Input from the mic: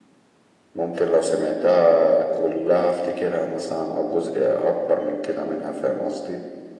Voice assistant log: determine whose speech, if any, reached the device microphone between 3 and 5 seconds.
echo only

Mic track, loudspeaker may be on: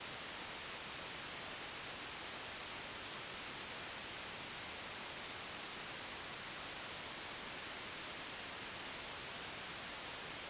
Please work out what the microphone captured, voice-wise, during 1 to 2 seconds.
neither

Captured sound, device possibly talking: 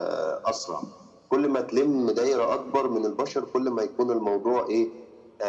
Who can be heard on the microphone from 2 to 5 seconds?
echo only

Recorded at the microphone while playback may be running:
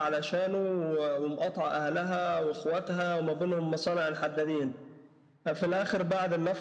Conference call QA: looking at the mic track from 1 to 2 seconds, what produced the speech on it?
echo only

